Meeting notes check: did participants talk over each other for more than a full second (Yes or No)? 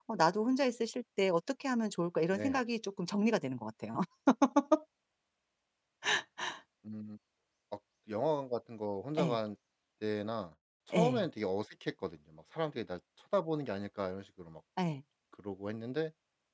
No